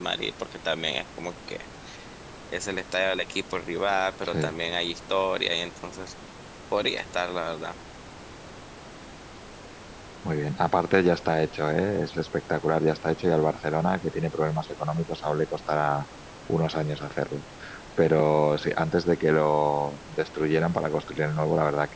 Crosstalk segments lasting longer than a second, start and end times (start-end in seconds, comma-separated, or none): none